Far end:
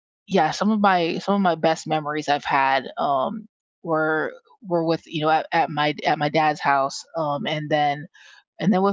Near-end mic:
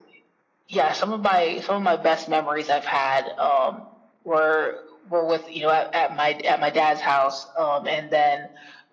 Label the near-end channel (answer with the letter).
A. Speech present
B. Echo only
B